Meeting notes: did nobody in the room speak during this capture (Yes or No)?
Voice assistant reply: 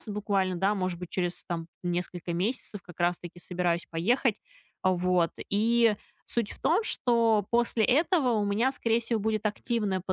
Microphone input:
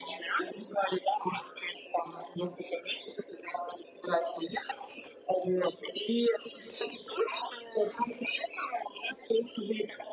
Yes